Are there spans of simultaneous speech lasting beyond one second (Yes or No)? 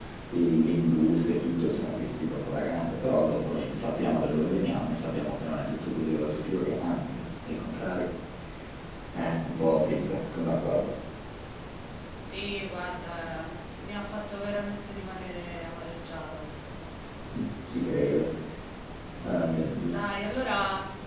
No